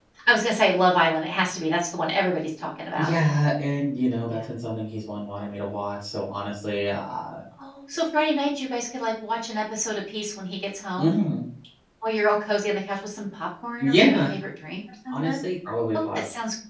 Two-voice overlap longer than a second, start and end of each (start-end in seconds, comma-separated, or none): none